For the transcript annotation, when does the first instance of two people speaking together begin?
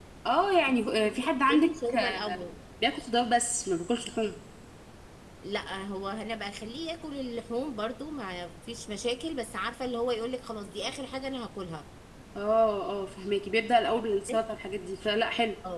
1.0 s

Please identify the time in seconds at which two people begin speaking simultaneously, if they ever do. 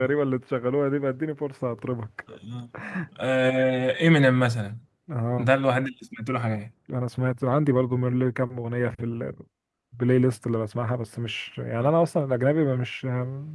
none

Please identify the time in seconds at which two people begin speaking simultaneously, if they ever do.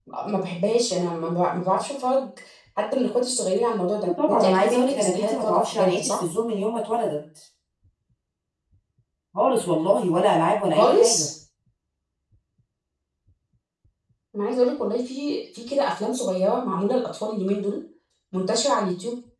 4.3 s

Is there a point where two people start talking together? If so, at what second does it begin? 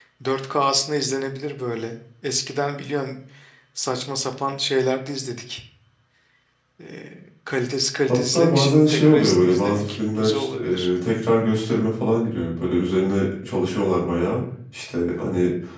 8.1 s

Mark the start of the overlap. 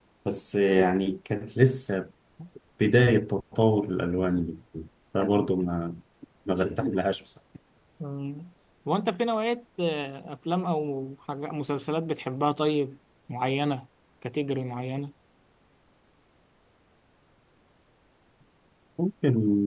none

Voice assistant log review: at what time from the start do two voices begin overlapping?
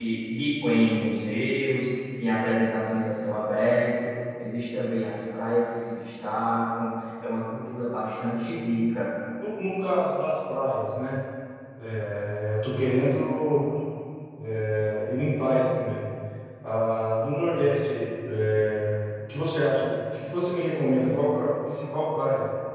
none

